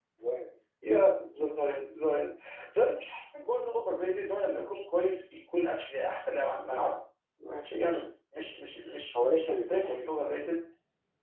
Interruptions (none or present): present